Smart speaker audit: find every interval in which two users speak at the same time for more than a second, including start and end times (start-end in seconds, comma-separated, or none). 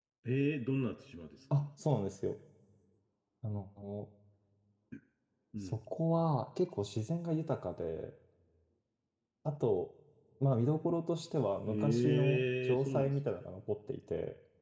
11.7-13.1